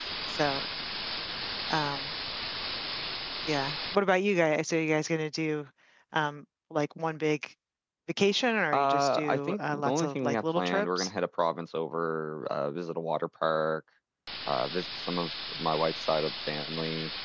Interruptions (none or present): present